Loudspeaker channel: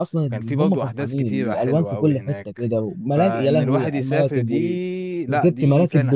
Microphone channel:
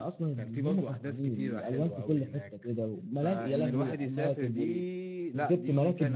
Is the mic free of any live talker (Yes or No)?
Yes